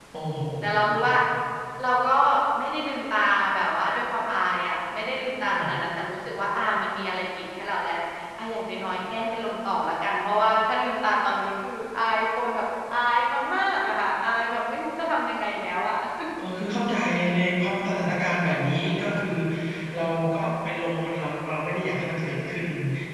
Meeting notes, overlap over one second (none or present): none